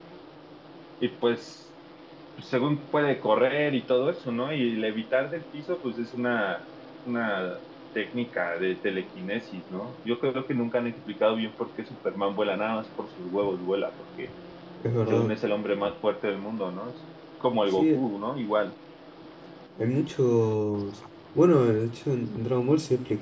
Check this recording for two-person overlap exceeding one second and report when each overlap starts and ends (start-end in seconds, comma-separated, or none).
none